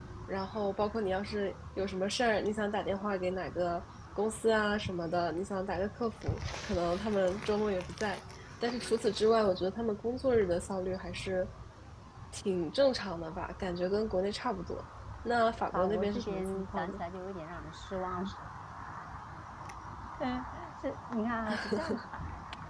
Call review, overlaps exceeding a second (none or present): present